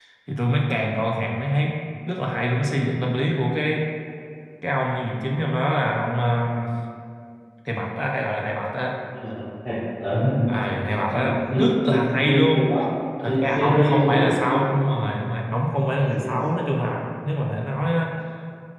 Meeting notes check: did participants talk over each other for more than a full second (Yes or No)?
Yes